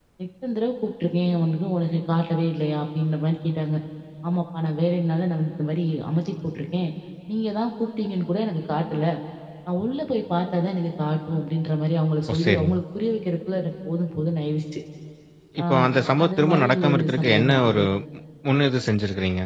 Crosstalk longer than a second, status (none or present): present